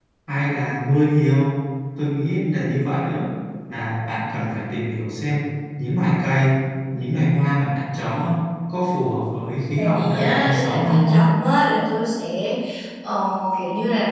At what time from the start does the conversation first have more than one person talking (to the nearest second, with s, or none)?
10 s